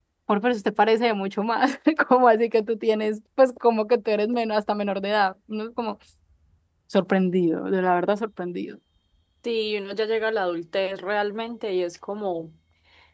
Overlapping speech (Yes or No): No